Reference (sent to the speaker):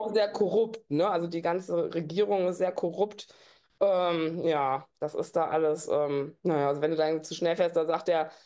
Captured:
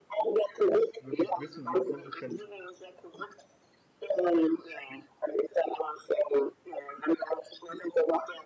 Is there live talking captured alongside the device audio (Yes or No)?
Yes